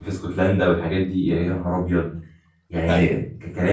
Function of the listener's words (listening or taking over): listening